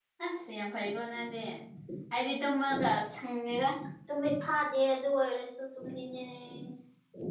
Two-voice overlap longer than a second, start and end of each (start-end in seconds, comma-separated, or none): none